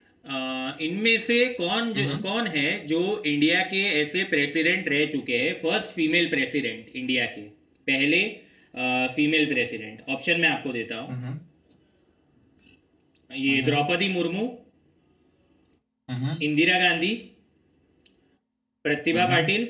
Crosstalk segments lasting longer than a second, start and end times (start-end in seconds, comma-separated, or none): none